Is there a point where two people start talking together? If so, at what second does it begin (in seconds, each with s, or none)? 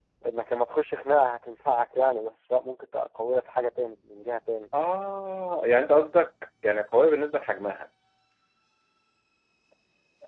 none